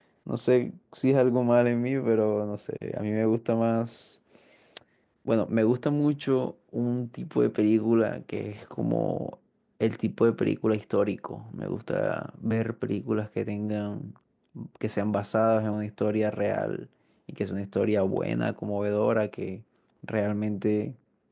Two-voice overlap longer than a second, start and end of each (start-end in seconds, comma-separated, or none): none